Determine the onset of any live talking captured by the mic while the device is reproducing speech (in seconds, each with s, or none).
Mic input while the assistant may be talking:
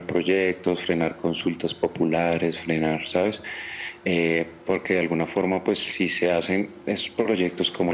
none